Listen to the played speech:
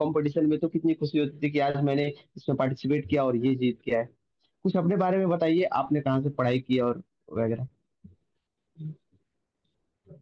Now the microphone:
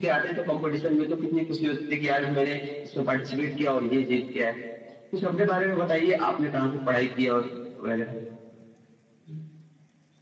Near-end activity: none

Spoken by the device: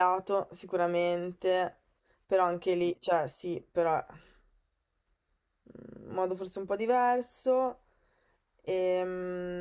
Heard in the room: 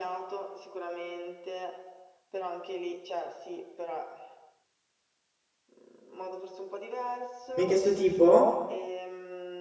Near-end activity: present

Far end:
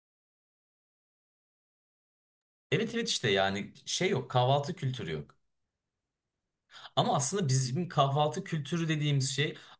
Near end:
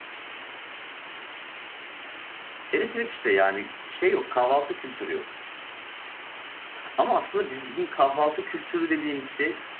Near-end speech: none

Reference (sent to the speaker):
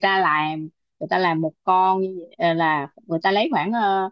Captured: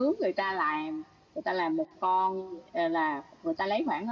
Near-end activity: none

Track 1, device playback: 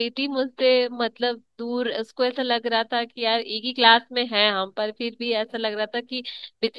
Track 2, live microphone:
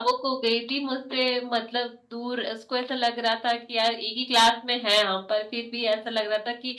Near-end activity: none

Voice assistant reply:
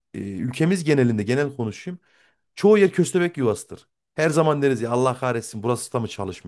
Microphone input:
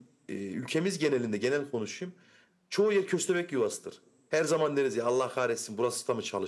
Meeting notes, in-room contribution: none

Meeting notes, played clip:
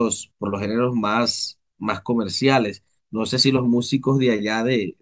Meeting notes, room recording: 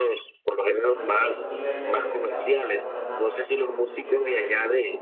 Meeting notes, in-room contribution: present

